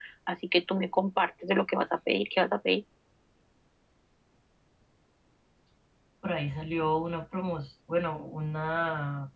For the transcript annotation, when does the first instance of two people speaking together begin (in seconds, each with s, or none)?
none